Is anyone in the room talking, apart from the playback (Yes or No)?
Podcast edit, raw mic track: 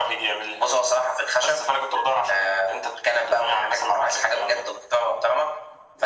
No